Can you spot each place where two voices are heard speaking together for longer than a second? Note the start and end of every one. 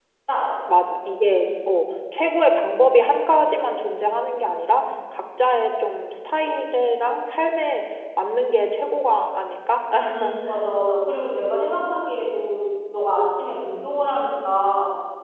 none

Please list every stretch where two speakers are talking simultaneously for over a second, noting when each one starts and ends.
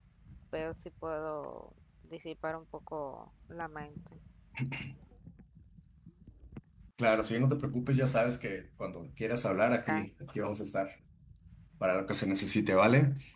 none

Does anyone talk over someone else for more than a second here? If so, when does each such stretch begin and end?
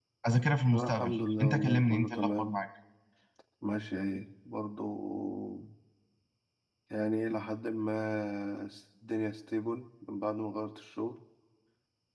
0.7-2.5

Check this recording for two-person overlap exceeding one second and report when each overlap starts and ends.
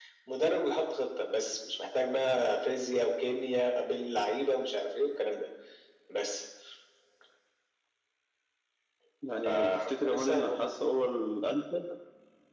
9.4-10.7

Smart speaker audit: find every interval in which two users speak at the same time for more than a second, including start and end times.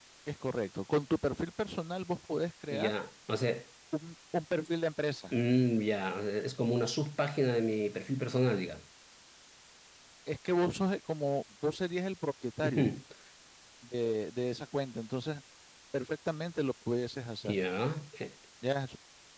none

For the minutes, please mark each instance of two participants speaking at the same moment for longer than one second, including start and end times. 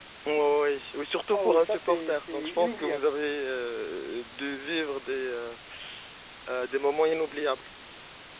1.3-3.1

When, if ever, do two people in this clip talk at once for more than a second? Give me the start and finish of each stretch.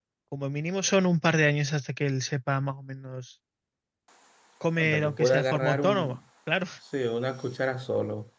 4.8-6.2

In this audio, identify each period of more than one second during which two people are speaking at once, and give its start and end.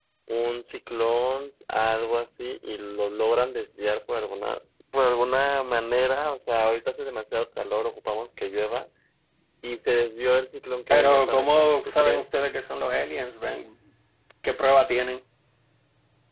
10.9-12.2

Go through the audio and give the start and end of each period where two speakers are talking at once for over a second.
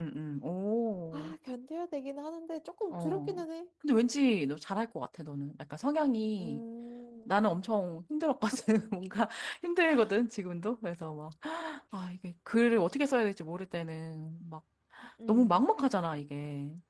none

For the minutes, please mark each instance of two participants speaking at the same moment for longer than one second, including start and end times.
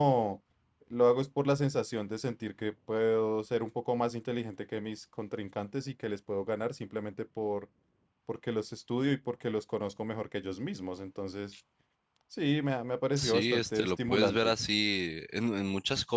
13.2-14.5

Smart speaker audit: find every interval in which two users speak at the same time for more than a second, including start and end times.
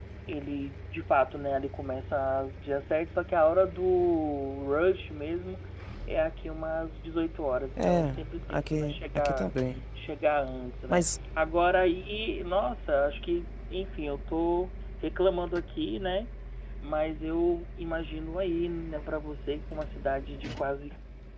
7.8-9.5

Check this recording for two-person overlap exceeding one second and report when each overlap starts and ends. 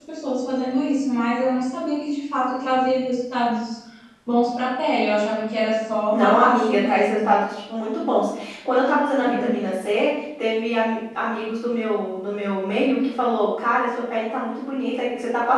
6.1-7.3

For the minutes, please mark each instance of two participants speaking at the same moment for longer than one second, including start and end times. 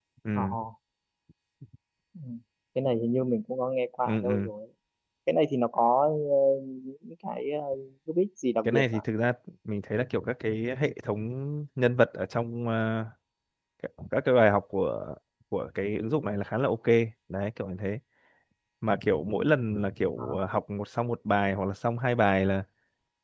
none

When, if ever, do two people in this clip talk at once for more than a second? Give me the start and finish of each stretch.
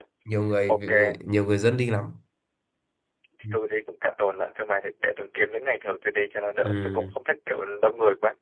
none

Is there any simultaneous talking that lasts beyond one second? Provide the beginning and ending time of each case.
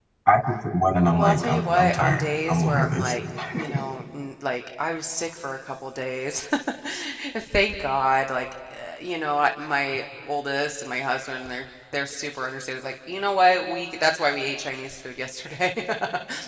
1.2-3.1

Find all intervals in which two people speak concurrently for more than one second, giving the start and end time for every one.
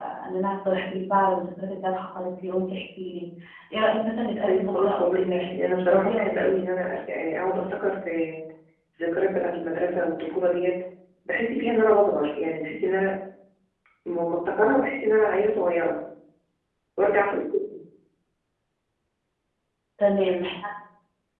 4.5-6.5

